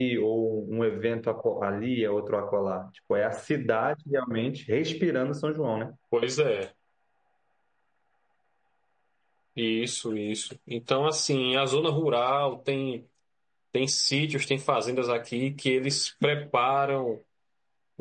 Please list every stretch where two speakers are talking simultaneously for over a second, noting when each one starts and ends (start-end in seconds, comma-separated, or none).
none